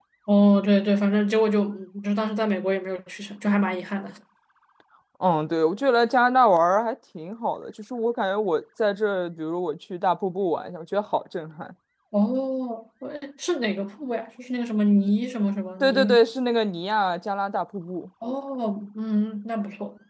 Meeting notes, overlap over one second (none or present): none